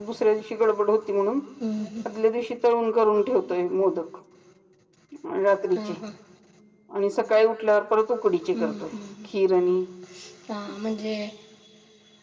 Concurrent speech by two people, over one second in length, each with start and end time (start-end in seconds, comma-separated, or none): none